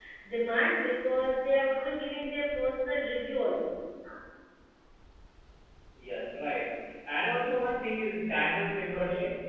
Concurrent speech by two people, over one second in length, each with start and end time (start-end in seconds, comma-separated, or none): none